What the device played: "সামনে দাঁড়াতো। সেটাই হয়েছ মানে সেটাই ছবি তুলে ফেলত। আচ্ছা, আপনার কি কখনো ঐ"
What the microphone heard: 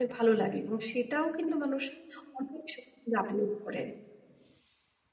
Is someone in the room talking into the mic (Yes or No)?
Yes